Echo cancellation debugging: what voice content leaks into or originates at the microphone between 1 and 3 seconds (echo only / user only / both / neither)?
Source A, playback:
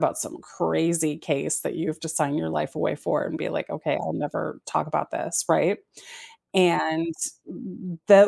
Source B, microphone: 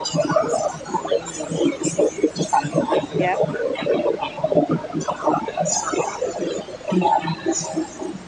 echo only